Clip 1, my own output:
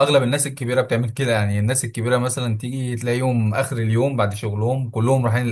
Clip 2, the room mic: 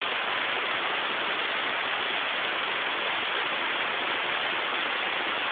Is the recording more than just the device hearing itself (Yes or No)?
No